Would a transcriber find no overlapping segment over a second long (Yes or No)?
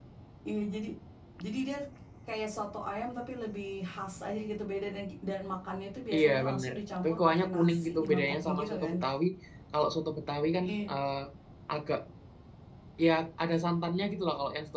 No